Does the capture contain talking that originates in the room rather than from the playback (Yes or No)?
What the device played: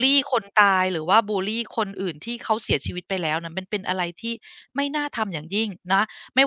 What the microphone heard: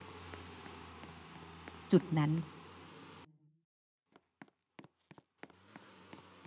Yes